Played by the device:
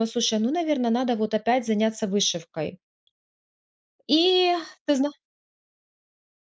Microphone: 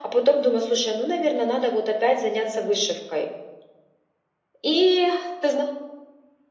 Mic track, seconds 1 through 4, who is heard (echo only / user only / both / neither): echo only